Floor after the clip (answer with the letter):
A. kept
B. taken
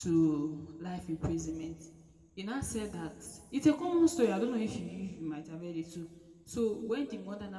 A